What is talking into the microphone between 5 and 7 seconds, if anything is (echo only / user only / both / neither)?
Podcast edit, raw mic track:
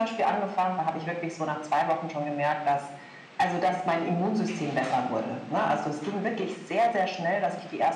echo only